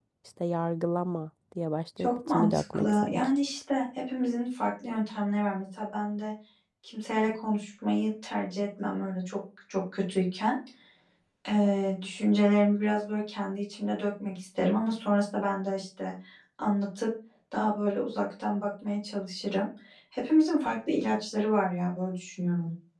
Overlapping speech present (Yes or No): Yes